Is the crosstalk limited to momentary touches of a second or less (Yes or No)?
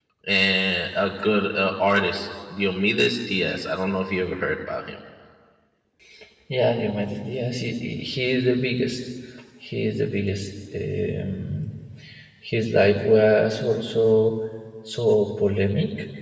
Yes